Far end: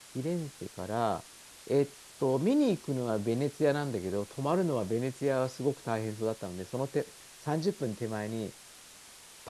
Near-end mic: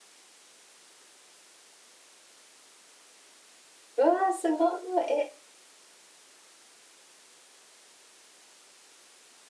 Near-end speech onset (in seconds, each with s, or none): 4.0 s